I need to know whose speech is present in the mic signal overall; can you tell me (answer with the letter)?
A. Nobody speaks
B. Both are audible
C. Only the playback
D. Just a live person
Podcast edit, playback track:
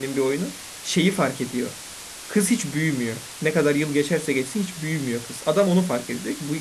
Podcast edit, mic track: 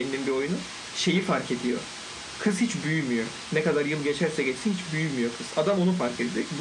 C